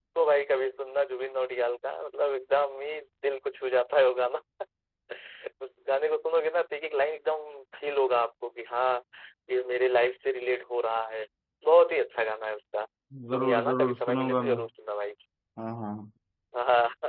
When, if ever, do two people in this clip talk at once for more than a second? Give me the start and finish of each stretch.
13.3-14.6

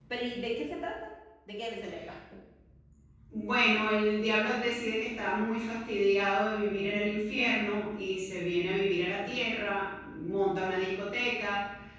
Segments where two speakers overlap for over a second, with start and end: none

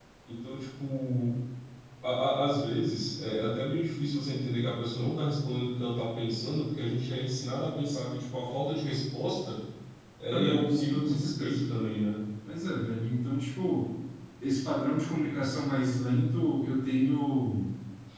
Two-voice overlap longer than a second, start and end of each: 10.3-11.7

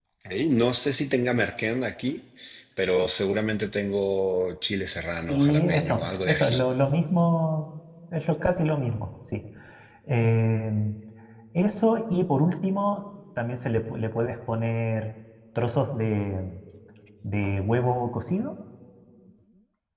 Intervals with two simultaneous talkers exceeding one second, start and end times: 5.3-6.6

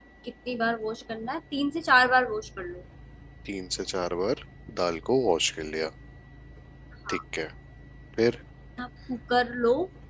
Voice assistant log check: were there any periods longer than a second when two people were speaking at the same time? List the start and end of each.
none

